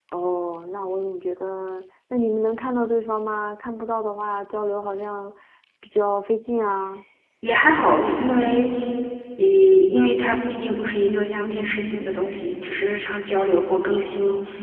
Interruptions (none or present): none